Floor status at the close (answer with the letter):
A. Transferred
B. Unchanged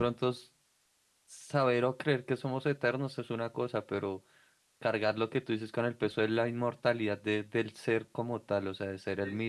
A